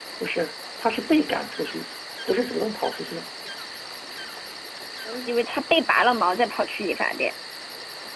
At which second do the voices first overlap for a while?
none

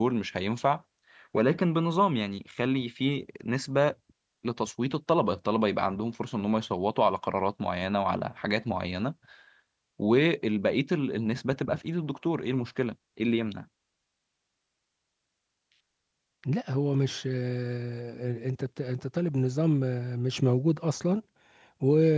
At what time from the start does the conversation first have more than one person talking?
none

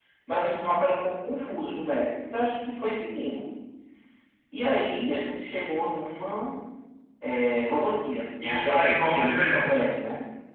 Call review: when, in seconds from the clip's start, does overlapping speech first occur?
8.4 s

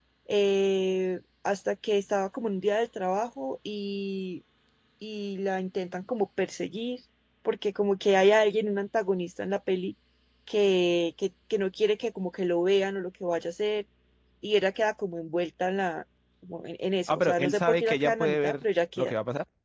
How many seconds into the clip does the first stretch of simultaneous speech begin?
17.1 s

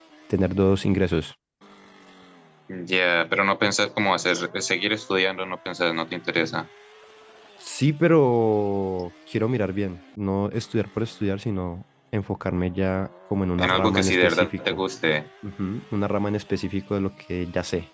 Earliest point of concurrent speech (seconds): 13.6 s

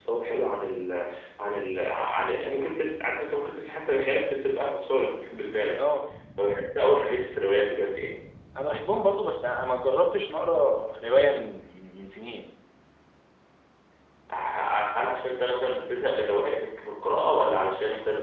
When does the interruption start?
none

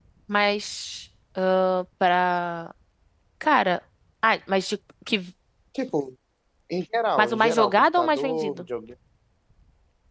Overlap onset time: 7.2 s

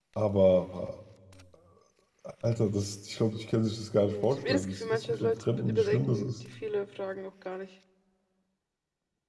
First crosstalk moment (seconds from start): 4.0 s

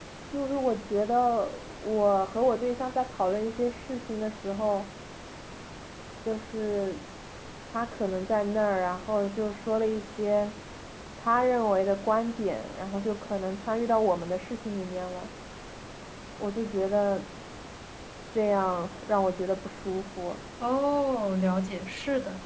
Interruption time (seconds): none

